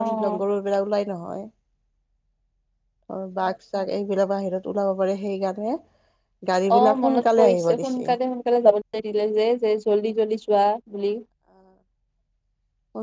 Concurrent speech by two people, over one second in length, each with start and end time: 6.8-8.1

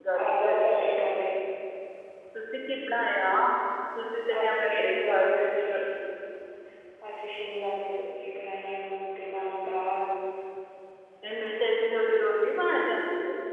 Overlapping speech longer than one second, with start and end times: 4.4-5.7

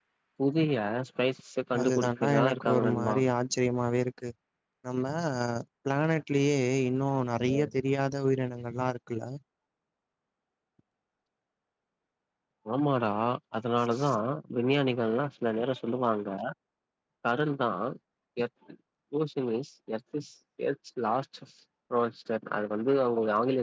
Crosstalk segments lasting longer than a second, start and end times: 1.8-3.1

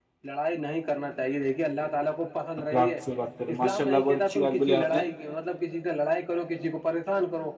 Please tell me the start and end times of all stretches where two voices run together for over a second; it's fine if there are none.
3.5-5.0

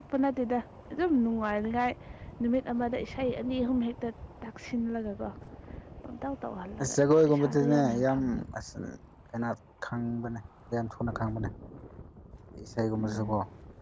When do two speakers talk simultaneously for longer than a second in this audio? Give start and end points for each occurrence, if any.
6.8-8.2

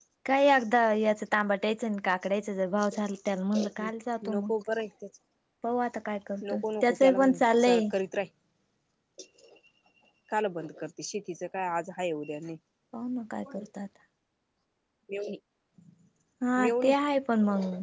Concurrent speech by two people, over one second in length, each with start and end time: 6.5-7.8

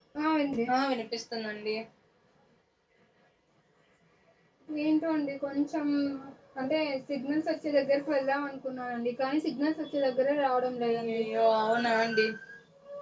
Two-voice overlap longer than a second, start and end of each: none

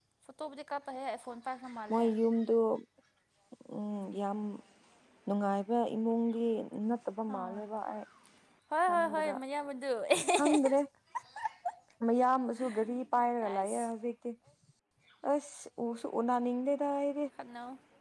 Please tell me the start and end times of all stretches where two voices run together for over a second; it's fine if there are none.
none

